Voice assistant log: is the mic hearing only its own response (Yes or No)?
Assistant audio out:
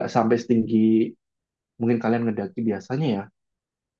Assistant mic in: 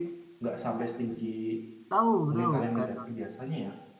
No